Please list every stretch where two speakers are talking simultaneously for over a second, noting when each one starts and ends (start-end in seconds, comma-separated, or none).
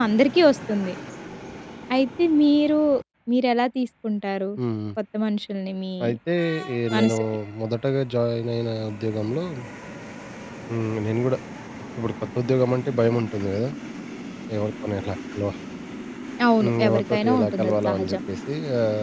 16.6-18.2